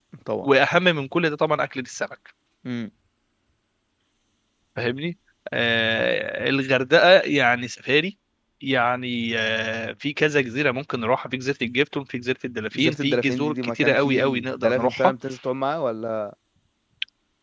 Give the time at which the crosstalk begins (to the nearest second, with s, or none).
13 s